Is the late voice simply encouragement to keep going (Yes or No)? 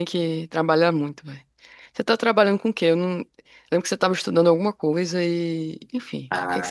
No